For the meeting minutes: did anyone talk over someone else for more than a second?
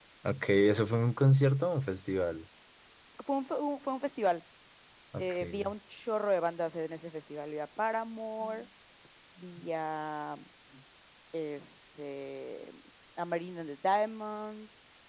No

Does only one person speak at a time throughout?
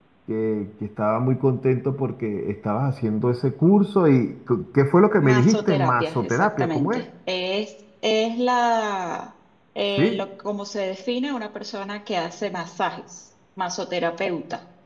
No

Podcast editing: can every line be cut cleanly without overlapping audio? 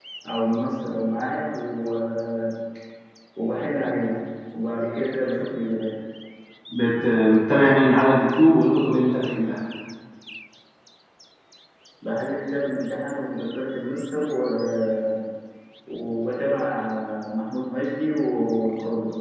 Yes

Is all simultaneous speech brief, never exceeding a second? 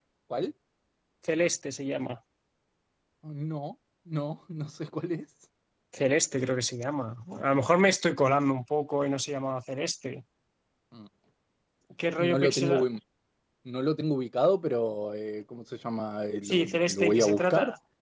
No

